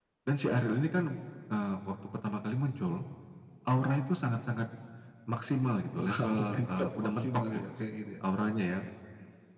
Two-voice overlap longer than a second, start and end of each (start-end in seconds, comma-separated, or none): 6.0-7.7